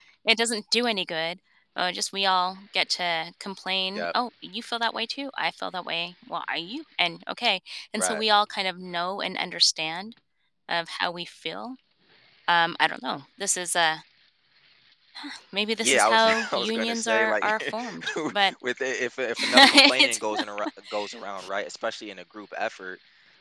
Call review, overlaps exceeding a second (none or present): present